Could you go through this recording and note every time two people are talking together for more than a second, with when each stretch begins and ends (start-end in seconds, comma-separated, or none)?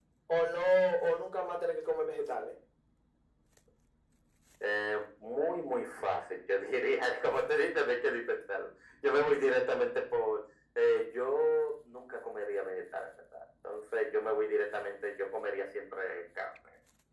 none